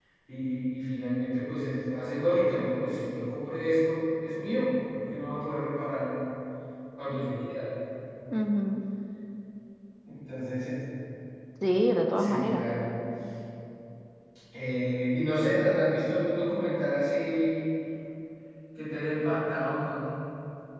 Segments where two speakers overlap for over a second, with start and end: none

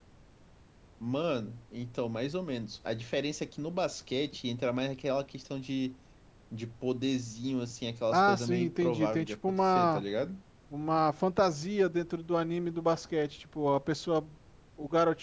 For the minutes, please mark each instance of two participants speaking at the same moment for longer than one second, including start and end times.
8.1-10.0

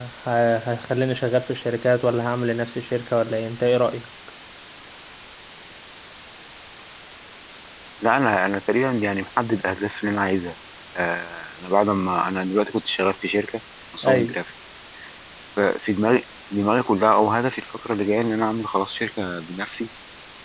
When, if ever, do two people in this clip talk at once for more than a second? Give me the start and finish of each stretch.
none

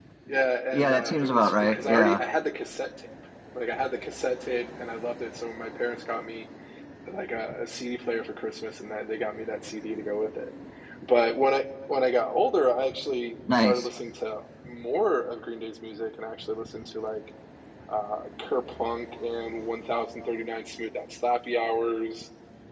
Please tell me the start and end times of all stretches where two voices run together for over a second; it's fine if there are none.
0.7-2.2

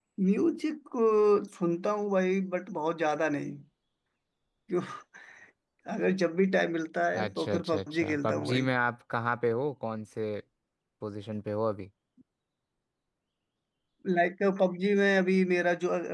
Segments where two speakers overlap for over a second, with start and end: 7.1-8.7

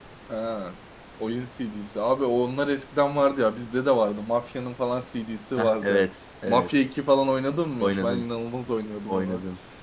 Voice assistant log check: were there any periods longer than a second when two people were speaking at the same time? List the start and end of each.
none

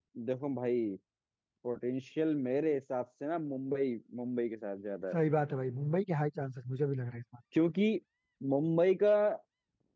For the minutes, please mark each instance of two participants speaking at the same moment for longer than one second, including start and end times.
none

